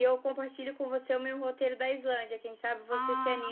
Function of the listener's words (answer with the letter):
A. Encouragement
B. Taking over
B